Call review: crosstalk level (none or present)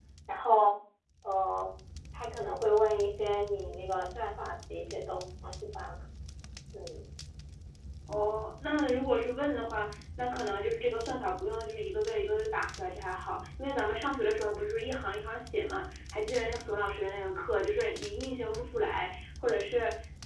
none